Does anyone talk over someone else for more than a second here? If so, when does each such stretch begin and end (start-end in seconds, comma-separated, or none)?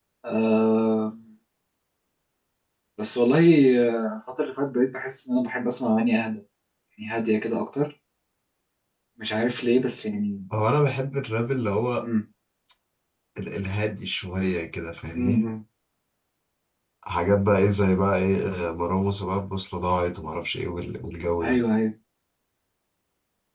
none